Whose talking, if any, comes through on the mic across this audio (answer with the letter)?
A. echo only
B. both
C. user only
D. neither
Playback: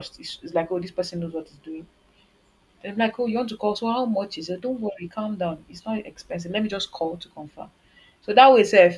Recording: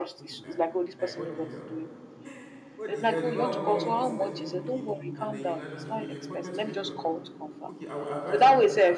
B